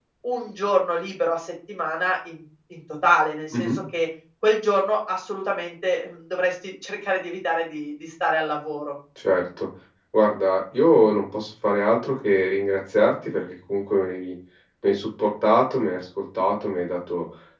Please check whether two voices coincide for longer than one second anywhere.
No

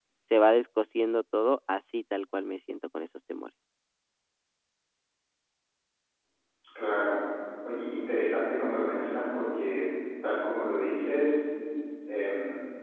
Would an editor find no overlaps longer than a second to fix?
Yes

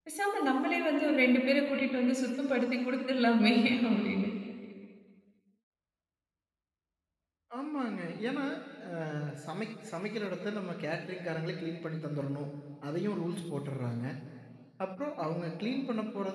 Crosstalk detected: No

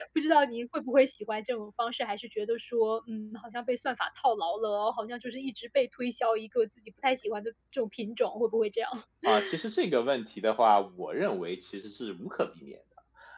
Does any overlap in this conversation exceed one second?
No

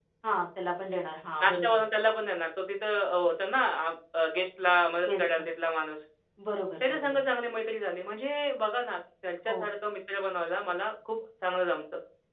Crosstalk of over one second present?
No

